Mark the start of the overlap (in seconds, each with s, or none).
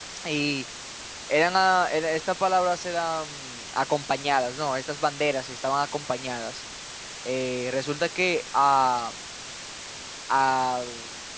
none